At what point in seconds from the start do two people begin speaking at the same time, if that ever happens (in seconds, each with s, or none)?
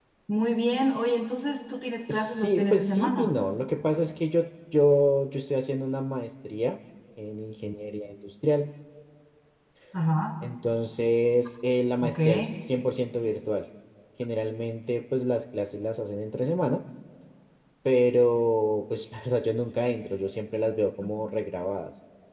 2.1 s